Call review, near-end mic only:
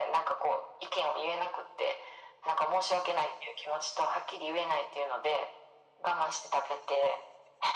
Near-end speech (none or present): none